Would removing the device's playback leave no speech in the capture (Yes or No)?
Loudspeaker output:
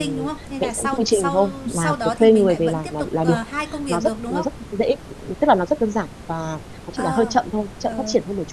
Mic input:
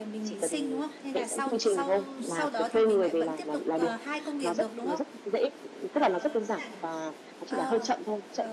No